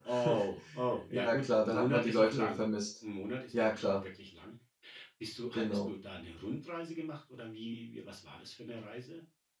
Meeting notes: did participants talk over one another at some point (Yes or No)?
Yes